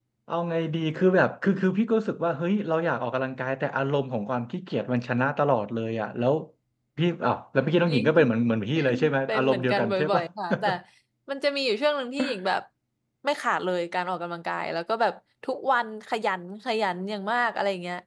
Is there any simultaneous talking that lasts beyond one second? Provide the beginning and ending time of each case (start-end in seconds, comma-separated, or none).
8.8-10.2